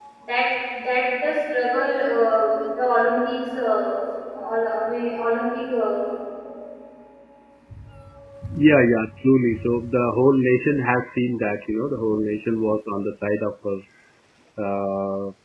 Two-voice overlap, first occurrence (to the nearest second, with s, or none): none